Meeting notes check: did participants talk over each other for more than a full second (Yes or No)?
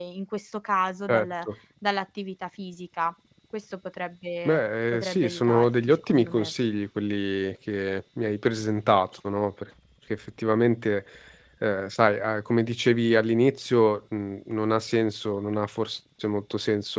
Yes